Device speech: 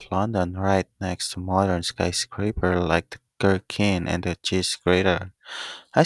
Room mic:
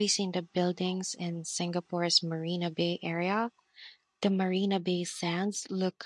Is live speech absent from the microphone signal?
No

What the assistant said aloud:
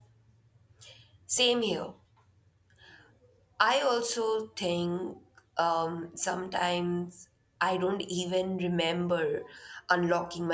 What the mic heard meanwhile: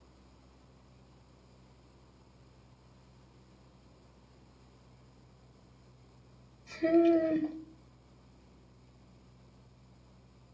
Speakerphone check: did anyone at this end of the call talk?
Yes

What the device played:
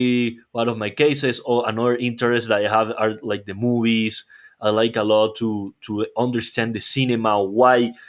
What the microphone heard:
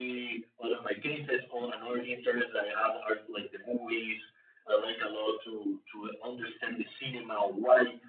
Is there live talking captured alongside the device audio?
No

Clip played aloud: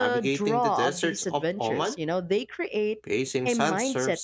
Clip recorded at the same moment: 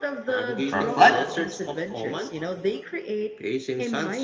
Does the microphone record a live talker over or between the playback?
Yes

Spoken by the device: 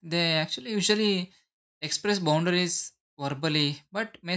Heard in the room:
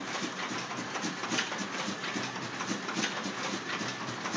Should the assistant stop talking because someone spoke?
No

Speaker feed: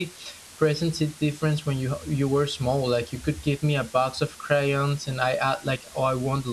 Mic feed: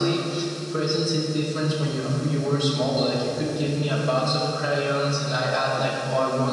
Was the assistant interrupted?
No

